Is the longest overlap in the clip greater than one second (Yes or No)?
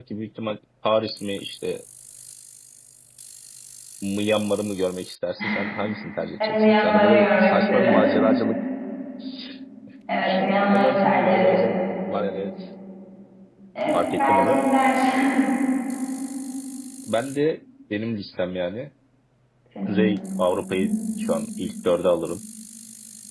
Yes